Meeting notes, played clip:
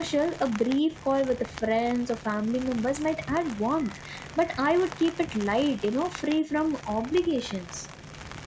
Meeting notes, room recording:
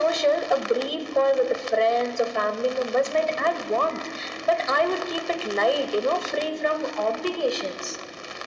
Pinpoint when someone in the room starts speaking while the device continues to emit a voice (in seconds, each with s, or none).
none